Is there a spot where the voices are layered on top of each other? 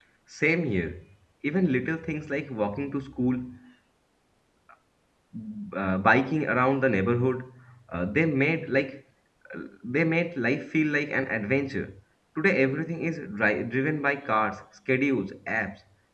No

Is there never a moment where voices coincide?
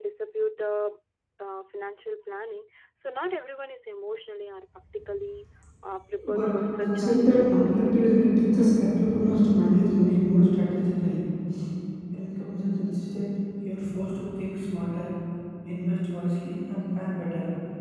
No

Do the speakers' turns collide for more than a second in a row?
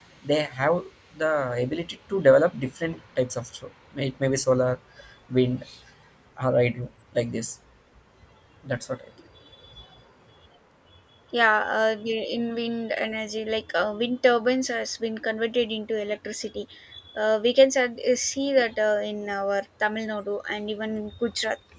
No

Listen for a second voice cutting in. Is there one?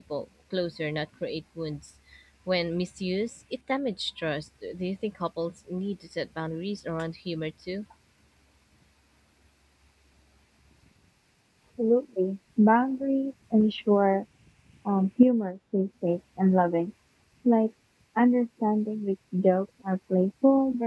No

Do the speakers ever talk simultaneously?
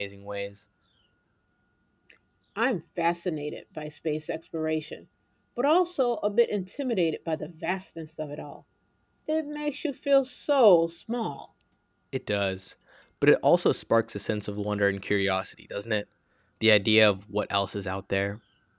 No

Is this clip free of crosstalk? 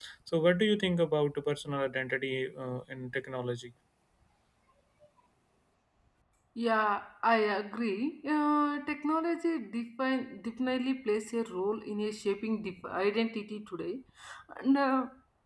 Yes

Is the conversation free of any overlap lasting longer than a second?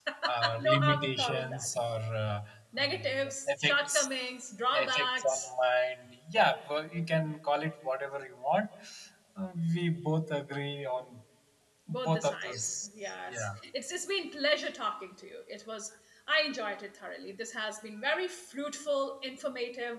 No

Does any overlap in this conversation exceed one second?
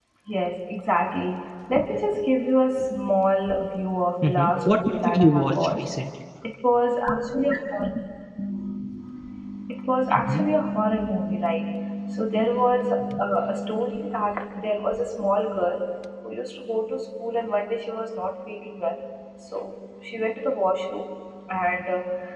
Yes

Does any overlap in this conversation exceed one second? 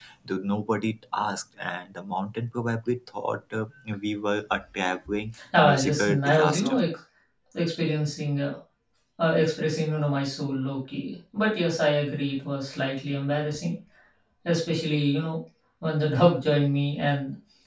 Yes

